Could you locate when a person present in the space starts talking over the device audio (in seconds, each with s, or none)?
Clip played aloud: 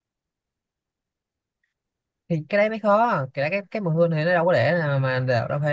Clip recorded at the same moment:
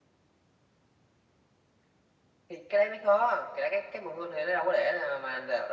none